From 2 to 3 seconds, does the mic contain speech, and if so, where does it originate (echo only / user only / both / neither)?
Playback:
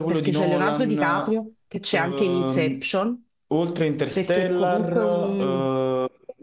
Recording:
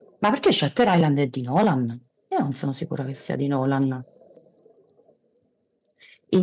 user only